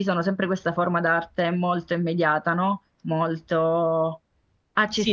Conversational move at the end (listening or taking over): listening